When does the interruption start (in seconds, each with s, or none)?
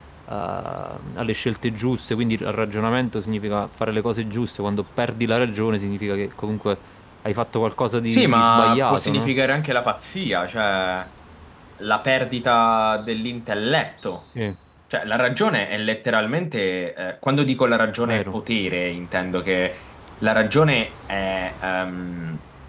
8.1 s